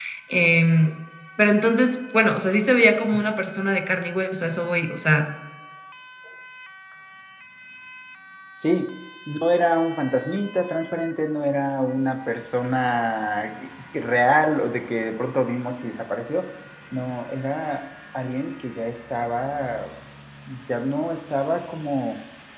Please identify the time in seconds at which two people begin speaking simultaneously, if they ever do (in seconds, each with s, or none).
none